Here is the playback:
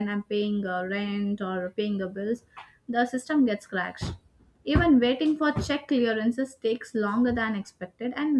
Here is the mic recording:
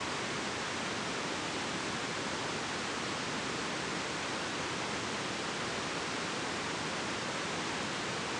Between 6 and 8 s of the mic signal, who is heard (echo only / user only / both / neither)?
neither